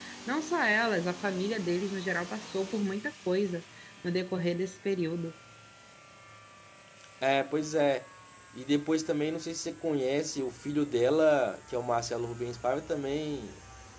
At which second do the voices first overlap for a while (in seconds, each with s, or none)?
none